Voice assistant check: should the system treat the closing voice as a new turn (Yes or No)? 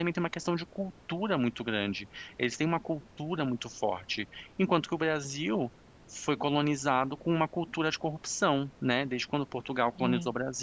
No